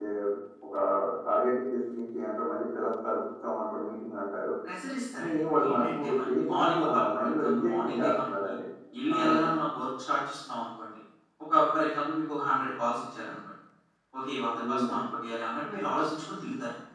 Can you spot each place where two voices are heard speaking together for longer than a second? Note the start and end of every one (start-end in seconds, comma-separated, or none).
5.1-8.5